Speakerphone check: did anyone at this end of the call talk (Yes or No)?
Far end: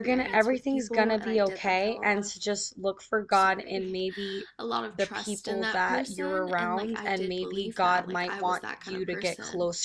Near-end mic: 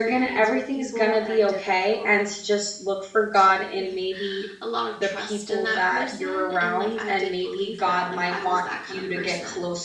No